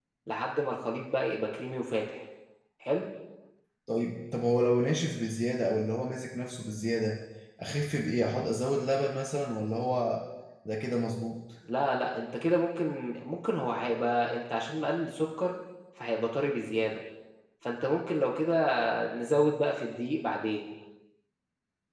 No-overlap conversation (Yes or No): Yes